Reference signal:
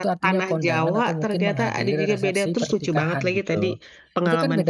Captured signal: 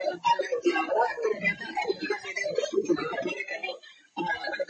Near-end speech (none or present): none